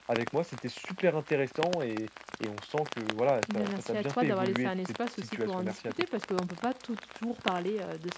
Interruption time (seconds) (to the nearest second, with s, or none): 3 s